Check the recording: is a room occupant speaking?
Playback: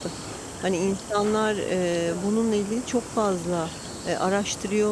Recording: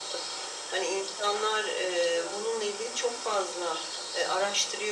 No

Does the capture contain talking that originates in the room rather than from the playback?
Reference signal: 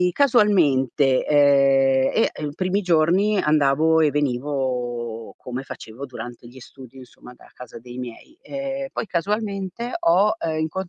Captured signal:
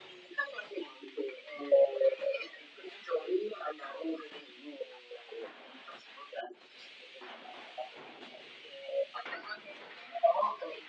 No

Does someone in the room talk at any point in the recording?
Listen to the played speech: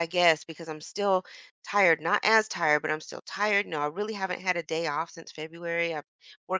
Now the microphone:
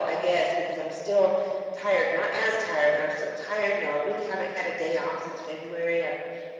No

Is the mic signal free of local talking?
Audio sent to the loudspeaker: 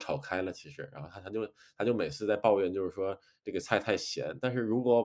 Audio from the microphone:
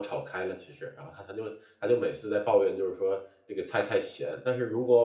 Yes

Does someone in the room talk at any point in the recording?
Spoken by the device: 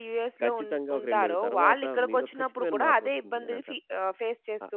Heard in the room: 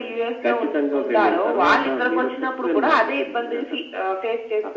No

